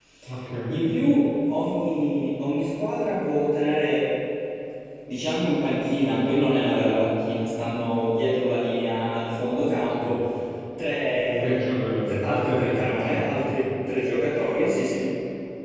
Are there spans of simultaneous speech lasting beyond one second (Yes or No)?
Yes